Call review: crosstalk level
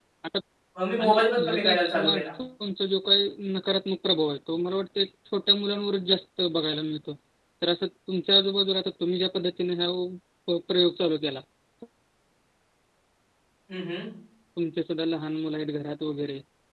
present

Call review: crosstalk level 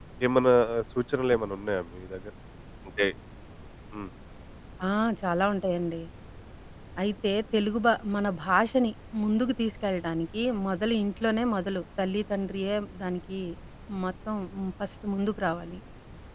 none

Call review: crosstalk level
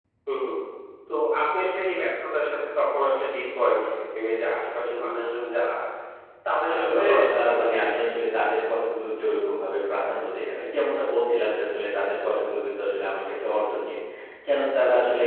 present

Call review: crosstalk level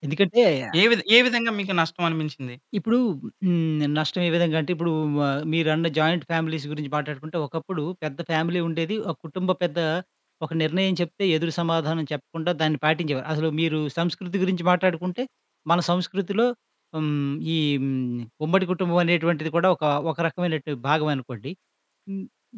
none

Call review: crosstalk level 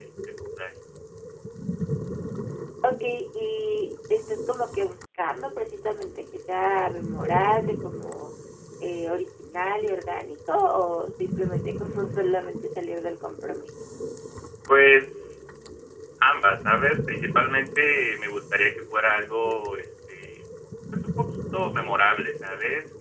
none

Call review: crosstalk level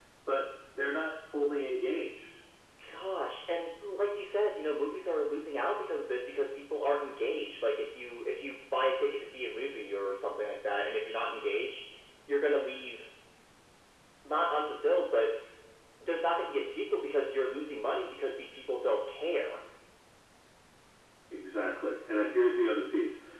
none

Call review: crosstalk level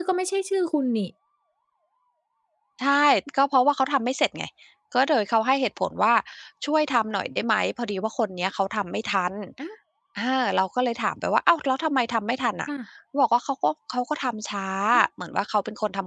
none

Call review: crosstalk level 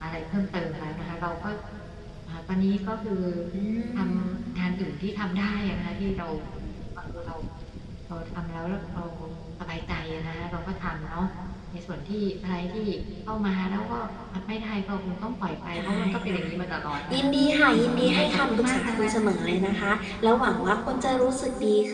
present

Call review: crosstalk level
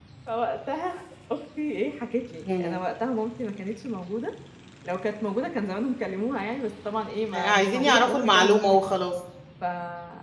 present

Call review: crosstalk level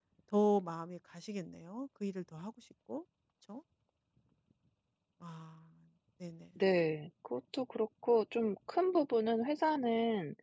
none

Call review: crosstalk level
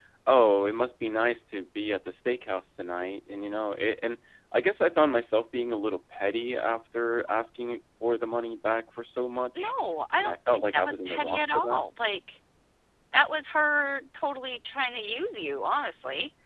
present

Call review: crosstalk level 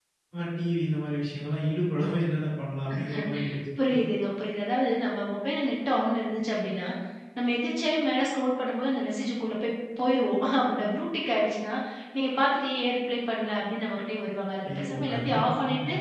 present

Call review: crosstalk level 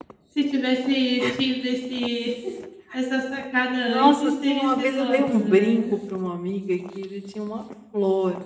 present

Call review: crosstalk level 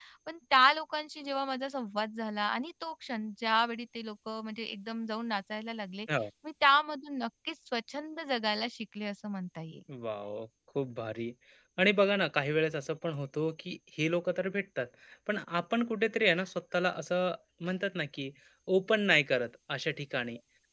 none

